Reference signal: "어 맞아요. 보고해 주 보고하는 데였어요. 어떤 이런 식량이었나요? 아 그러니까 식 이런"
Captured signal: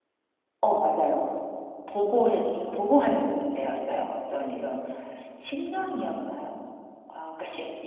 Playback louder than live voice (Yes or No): Yes